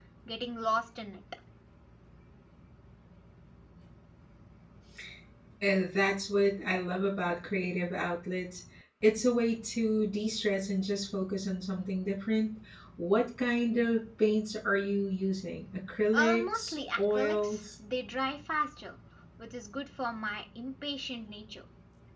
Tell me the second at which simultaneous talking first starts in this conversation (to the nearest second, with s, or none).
16 s